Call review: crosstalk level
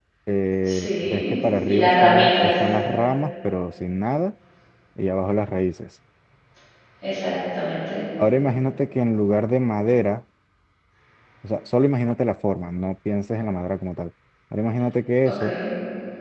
present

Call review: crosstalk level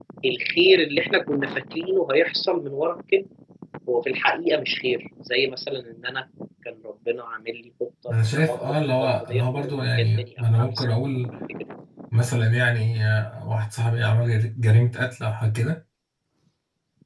present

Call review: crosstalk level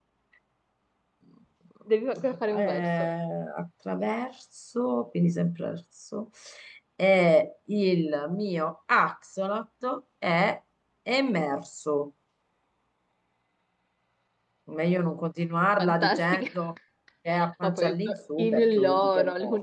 present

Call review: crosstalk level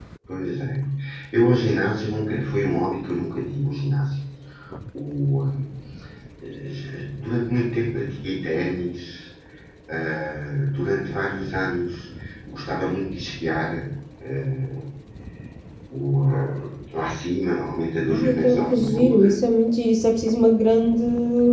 present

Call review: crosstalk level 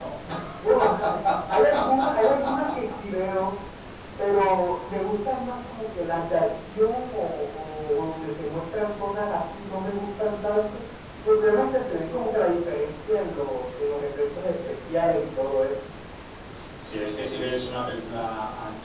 none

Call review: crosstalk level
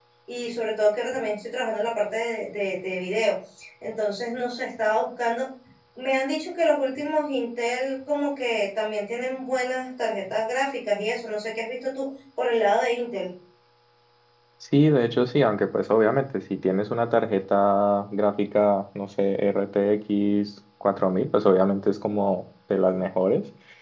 none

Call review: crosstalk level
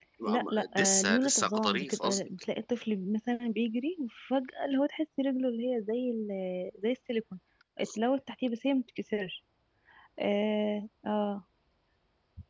present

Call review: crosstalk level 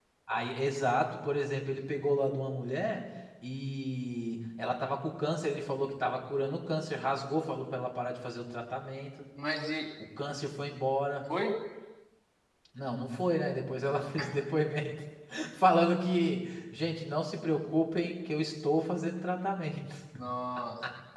none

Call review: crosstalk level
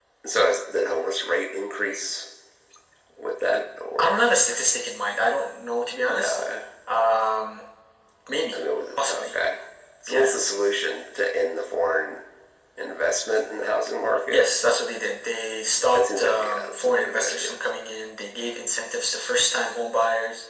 present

